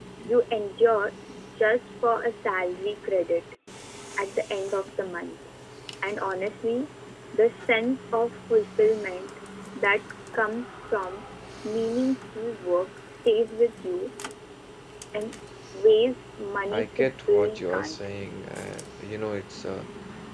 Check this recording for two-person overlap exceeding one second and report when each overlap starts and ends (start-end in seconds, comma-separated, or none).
16.7-18.0